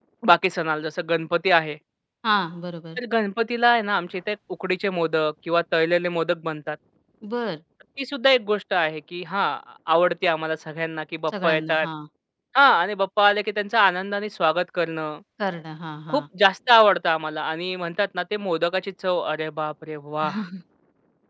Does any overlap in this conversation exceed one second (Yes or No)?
No